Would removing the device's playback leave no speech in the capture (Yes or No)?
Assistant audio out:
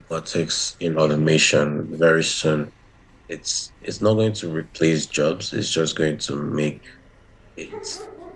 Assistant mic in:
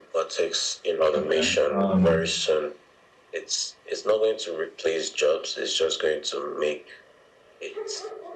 No